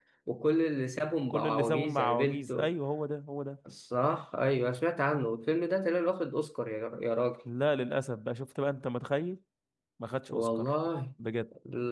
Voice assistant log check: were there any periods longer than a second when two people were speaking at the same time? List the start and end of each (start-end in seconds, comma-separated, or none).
1.3-2.7